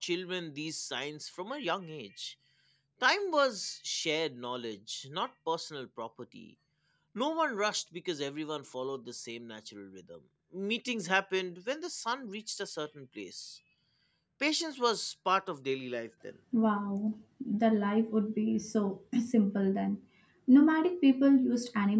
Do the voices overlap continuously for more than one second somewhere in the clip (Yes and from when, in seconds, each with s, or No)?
No